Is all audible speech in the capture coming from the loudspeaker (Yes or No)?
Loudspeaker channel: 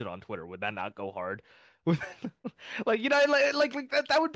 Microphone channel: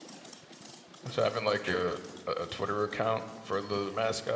No